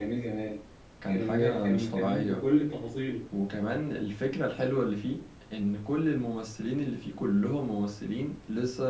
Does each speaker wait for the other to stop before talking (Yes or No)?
No